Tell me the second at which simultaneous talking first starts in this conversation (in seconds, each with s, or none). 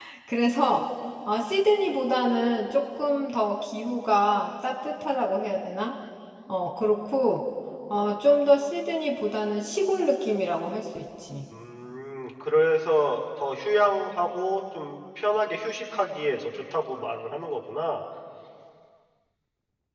none